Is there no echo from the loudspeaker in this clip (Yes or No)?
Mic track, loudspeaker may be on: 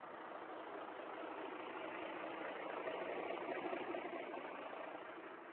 Yes